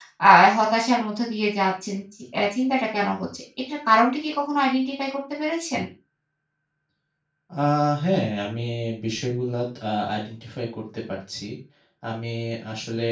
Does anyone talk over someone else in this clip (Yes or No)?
No